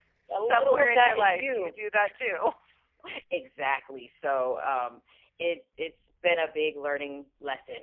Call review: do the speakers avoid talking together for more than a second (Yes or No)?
No